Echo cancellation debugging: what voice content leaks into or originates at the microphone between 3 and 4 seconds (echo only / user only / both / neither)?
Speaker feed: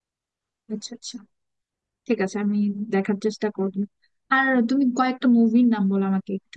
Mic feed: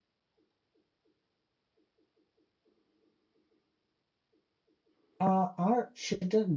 neither